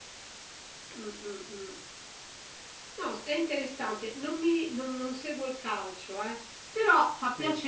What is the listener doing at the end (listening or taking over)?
listening